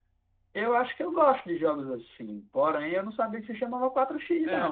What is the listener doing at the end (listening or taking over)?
taking over